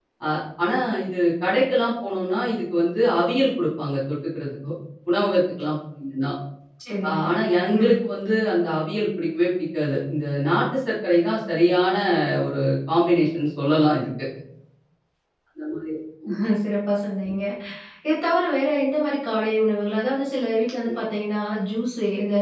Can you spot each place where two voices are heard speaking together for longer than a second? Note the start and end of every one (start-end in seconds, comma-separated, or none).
none